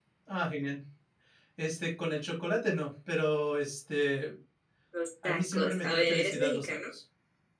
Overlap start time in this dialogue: 5 s

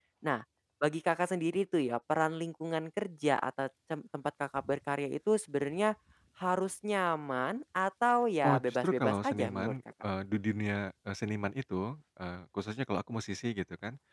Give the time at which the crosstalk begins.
8 s

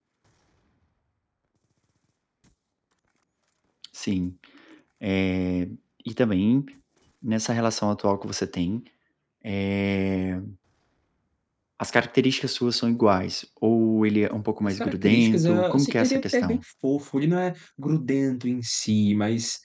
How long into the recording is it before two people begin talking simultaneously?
15 s

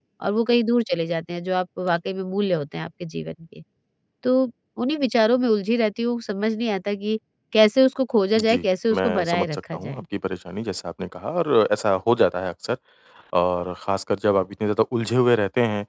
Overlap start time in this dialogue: 8 s

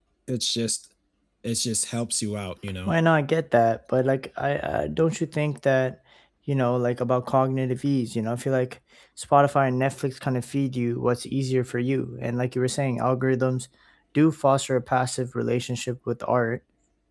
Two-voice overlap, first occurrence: none

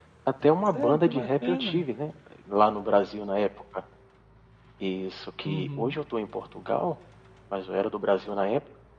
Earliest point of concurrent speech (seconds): 1 s

